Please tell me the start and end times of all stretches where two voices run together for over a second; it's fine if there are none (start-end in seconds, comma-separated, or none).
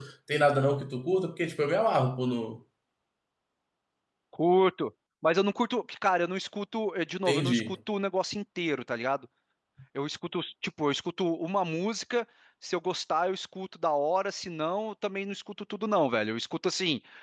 none